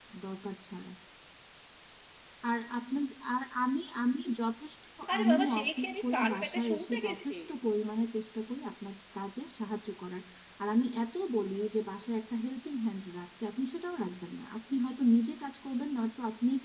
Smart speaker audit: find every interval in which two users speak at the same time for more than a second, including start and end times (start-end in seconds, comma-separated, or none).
5.2-7.3